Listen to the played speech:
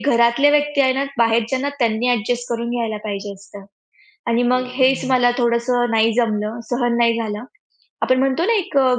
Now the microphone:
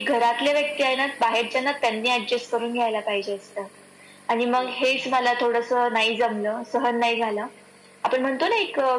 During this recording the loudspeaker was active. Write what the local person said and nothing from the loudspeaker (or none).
none